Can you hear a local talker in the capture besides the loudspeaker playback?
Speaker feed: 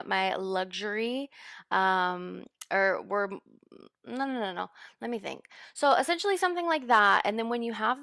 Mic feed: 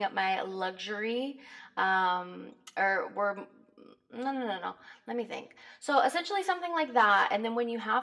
No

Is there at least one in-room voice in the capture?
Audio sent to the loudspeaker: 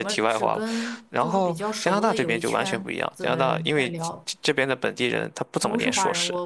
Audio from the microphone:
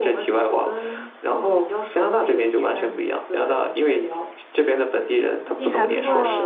Yes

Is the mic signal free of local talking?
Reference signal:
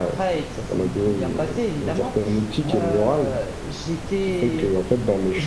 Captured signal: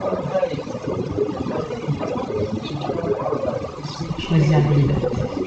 No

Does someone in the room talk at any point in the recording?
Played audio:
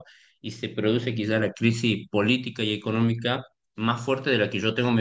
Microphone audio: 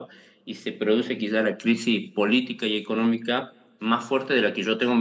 No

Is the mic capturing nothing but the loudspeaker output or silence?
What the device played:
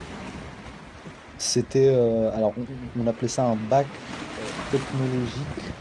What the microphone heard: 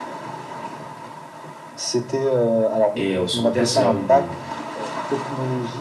No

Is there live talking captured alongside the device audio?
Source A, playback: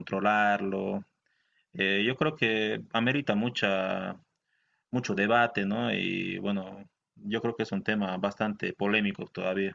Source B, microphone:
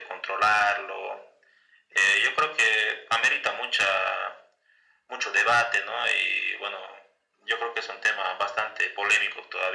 No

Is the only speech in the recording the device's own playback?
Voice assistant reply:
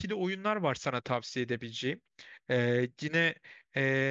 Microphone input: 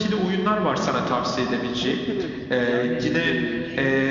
No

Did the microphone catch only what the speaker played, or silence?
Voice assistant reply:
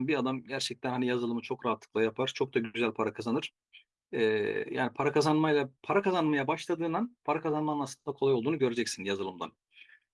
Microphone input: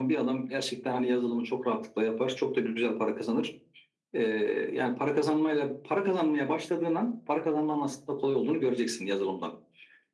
Yes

